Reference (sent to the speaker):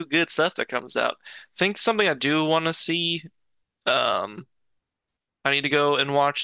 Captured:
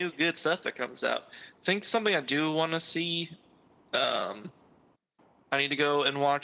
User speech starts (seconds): none

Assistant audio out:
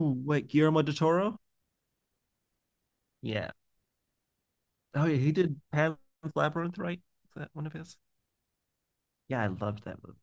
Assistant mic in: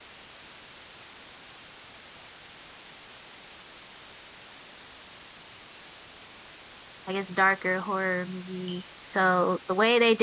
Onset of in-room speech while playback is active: 7 s

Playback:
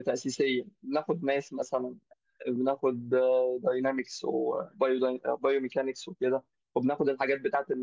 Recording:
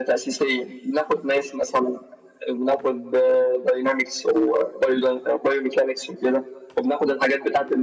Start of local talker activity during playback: none

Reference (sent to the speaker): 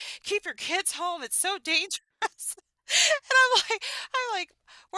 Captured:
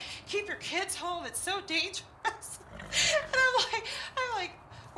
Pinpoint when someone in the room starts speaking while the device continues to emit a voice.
none

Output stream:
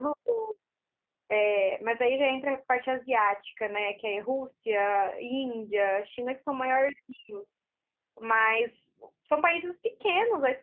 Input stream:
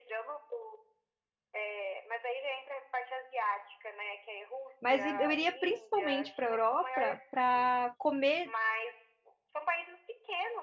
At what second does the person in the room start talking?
5 s

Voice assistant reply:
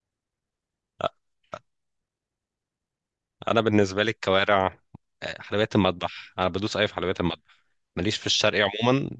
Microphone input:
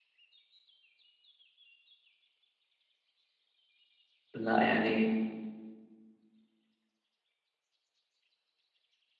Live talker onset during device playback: 4 s

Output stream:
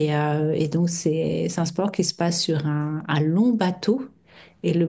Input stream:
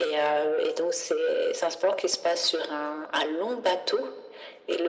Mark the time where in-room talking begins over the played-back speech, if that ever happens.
none

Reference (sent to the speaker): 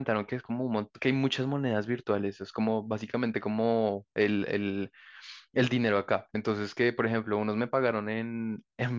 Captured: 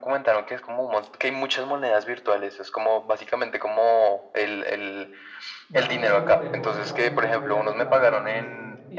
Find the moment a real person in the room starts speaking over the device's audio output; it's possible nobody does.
6 s

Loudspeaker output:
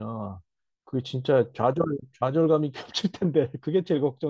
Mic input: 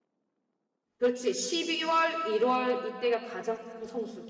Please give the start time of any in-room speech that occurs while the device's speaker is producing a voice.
1 s

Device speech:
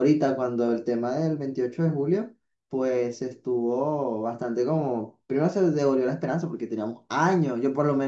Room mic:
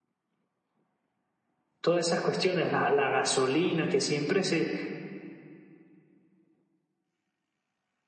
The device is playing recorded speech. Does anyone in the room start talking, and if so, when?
2 s

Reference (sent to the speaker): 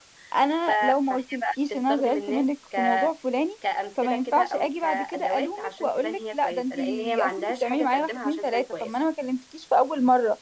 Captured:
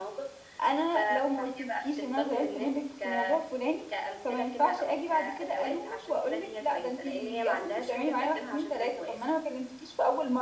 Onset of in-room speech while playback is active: none

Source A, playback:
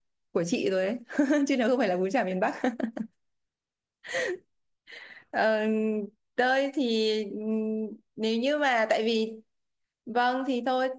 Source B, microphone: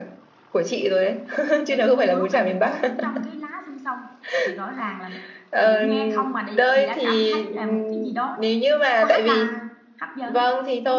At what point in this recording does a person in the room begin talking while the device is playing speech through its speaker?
2 s

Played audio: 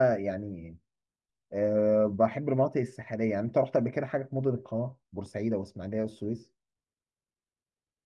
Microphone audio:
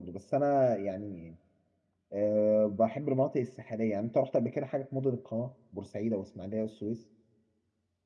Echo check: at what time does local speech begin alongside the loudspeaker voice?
none

